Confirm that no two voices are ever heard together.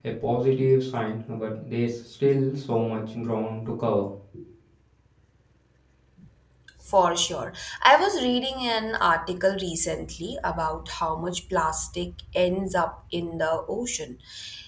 Yes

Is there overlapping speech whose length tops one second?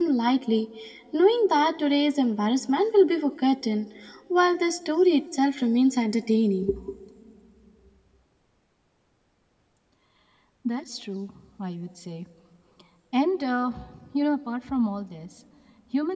No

